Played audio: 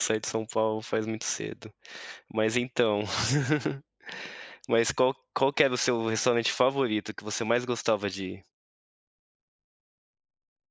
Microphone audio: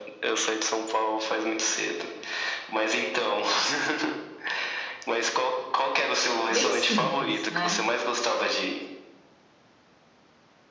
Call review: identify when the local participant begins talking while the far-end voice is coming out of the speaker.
6.5 s

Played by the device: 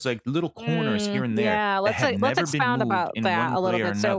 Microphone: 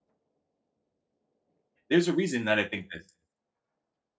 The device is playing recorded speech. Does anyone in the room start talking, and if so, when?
1.9 s

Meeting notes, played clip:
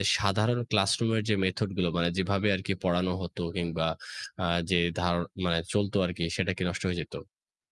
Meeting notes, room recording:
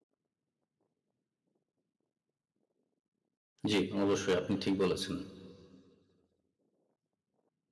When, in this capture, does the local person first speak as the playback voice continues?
3.7 s

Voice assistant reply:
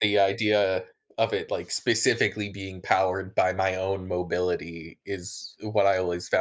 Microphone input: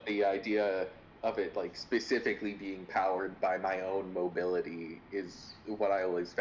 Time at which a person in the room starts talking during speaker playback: none

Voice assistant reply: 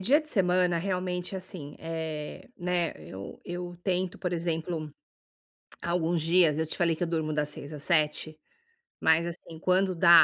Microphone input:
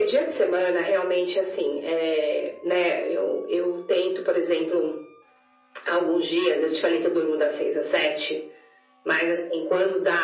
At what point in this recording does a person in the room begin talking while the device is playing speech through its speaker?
none

